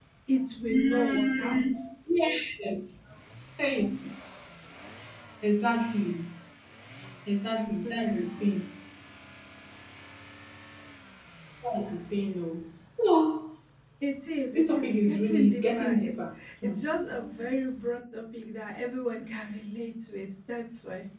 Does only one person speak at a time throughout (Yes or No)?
No